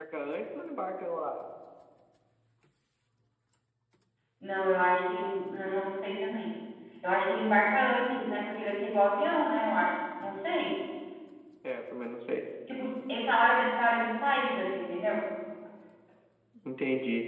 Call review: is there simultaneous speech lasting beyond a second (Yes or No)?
No